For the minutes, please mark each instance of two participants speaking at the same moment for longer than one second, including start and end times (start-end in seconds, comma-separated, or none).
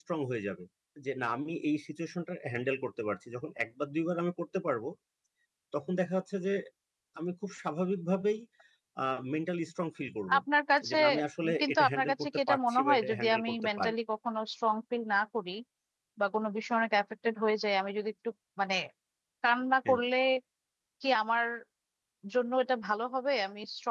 11.6-13.9